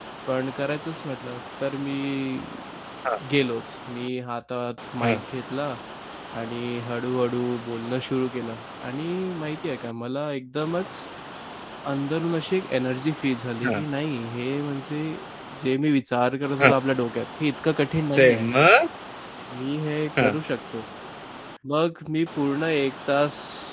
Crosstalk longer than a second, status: none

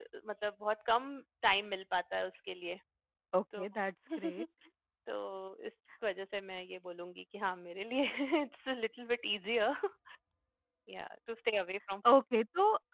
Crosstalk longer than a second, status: none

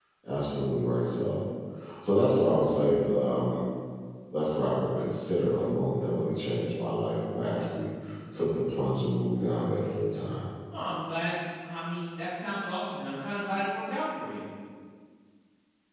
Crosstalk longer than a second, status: none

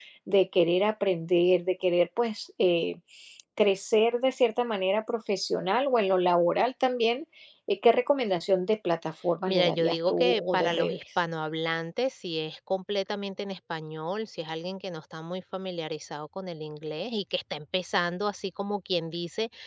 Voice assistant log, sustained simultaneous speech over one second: present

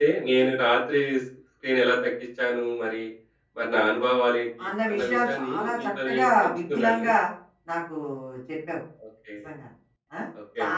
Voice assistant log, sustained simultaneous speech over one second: present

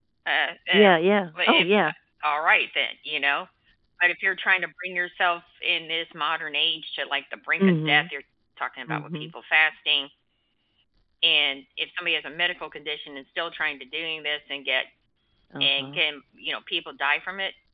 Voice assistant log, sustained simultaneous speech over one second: none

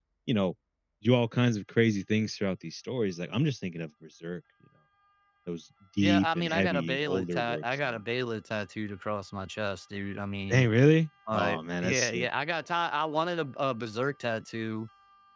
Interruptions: present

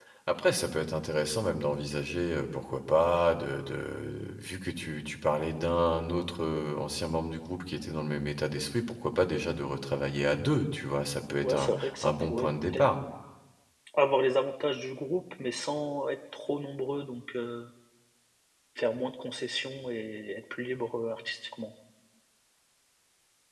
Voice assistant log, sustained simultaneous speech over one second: present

